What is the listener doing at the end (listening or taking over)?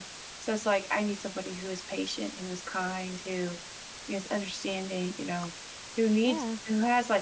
listening